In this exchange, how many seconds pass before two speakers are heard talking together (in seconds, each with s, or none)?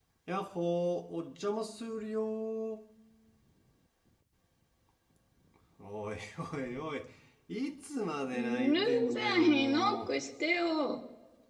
8.3 s